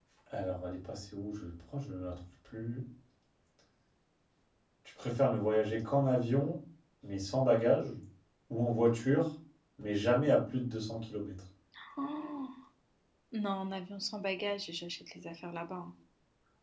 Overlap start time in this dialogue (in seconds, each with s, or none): none